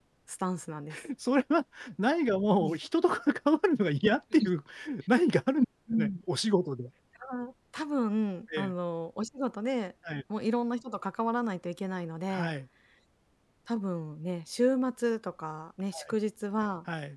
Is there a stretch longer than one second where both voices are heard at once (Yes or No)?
No